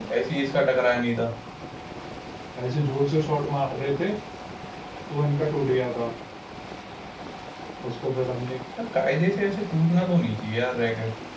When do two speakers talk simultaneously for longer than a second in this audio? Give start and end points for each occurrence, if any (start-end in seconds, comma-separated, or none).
none